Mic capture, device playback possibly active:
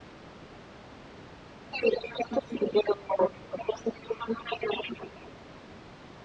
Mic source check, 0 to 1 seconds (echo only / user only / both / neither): neither